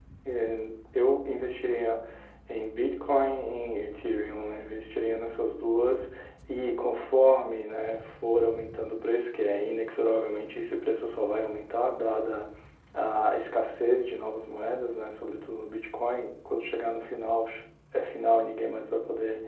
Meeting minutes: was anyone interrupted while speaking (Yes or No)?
No